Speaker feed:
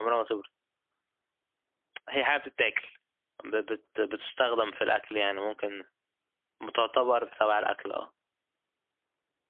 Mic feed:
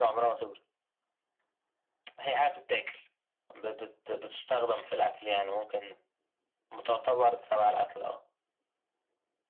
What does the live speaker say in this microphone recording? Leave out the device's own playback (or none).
none